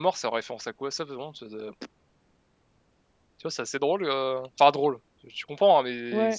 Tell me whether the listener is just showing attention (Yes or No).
Yes